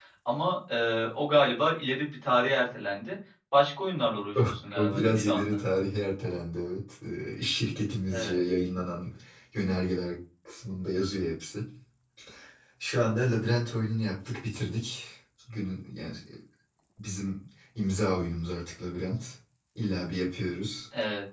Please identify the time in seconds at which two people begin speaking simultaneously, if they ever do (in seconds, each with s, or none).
4.3 s